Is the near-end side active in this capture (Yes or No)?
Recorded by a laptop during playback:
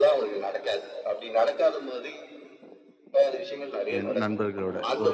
Yes